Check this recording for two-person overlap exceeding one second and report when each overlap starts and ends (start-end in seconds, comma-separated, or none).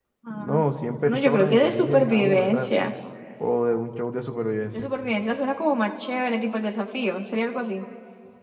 1.0-2.7